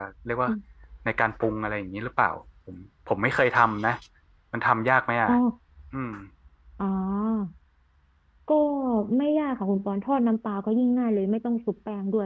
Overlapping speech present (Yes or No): No